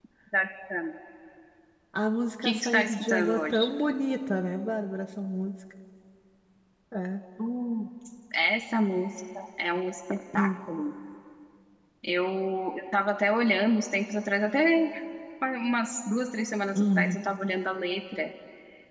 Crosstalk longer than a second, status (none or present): present